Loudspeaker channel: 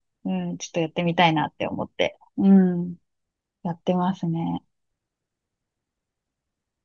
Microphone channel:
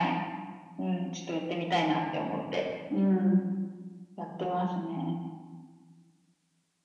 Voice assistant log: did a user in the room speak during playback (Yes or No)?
No